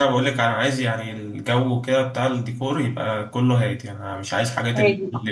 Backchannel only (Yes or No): Yes